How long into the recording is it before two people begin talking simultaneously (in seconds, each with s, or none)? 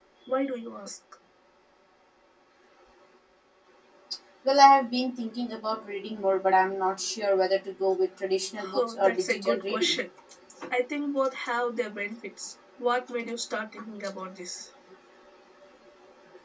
8.6 s